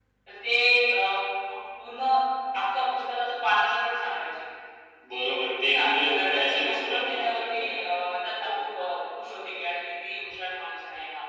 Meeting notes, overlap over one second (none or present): present